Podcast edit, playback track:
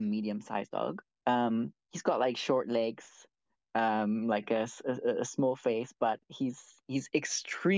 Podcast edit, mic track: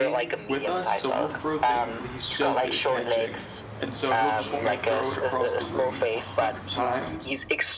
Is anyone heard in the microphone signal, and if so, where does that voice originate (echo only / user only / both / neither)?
both